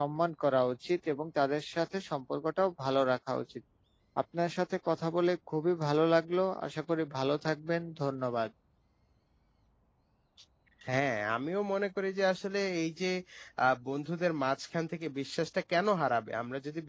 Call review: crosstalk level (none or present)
none